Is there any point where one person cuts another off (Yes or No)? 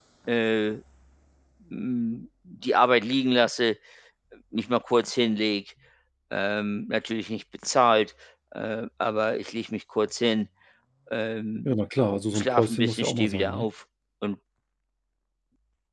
Yes